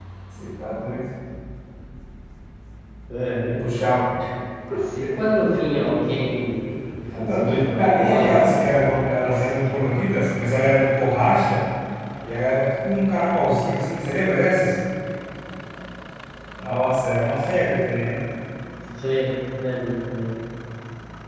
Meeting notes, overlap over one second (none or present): present